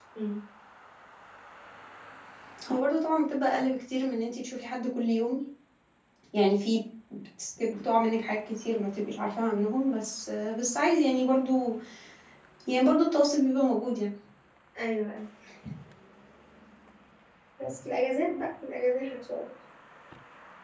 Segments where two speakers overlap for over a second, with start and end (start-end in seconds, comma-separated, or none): none